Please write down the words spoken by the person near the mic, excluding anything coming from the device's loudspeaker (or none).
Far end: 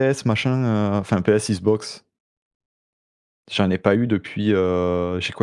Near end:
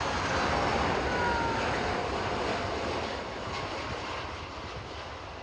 none